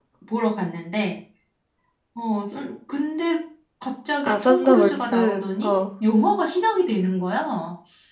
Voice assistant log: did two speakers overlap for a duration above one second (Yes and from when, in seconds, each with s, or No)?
Yes, from 4.2 s